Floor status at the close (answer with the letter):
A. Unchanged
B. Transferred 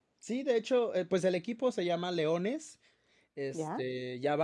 A